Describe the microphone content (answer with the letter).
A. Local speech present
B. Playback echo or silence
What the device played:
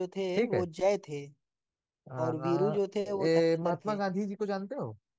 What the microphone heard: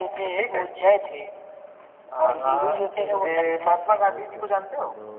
A